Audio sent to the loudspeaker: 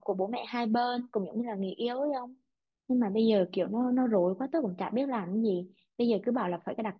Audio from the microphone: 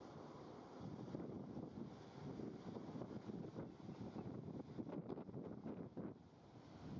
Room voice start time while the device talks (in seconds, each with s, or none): none